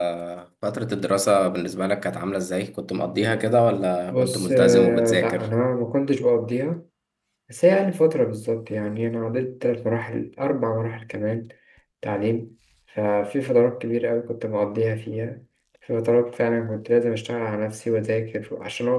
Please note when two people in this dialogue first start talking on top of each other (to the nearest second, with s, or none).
4 s